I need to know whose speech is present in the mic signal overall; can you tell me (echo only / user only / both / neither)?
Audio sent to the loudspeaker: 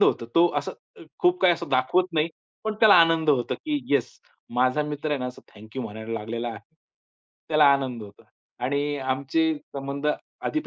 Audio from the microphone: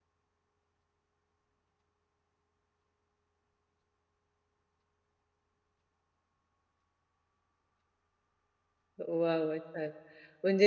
user only